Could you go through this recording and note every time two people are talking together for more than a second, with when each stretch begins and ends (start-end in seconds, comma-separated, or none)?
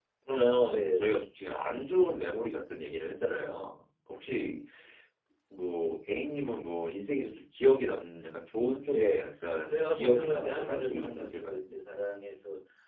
9.6-11.6